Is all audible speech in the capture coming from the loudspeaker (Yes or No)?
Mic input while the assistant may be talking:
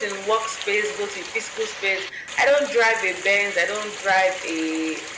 Yes